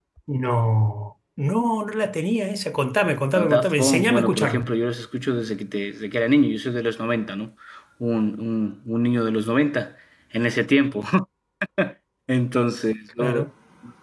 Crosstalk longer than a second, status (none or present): present